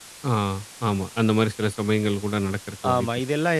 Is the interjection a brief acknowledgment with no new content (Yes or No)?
No